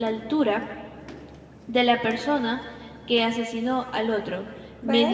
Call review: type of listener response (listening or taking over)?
listening